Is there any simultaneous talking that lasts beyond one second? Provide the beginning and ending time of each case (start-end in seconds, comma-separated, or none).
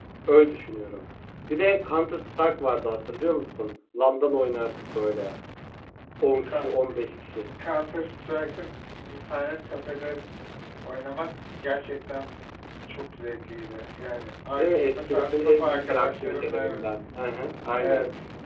14.6-16.8